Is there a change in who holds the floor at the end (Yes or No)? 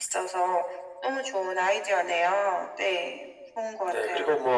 Yes